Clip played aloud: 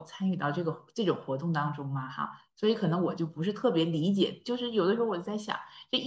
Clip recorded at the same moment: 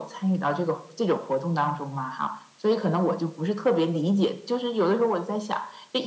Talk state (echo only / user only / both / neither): echo only